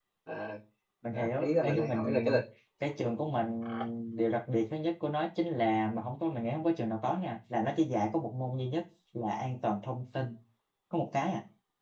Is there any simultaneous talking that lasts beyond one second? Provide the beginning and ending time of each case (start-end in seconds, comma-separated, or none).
1.1-2.3